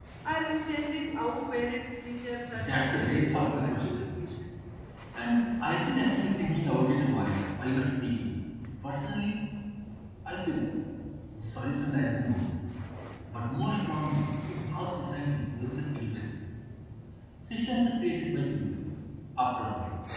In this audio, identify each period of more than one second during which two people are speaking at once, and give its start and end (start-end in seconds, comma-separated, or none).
2.5-4.1